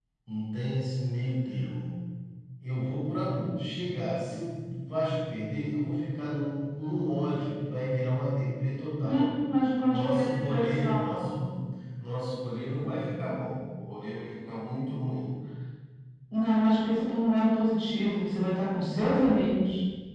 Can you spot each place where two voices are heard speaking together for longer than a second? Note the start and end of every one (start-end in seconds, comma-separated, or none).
9.9-11.4